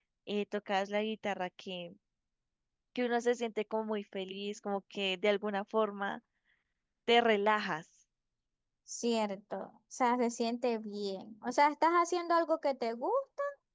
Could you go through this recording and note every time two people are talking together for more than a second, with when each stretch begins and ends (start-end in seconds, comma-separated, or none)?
none